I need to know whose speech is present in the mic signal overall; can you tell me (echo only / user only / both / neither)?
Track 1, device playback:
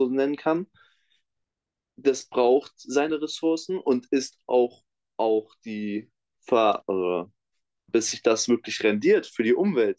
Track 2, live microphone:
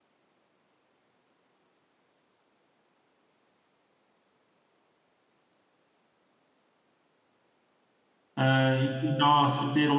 user only